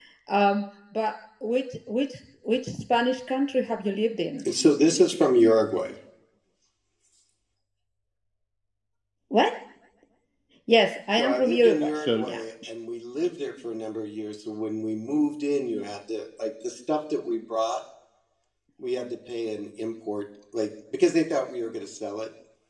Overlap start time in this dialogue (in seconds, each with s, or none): 11.2 s